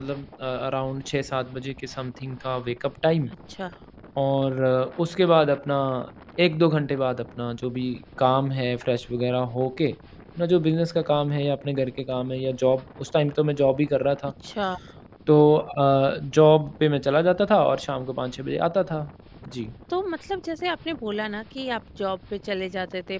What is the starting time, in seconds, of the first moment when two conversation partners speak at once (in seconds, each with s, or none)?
none